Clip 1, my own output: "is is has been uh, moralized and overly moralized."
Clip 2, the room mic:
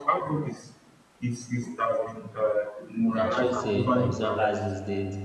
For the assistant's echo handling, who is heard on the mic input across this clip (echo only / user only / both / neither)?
both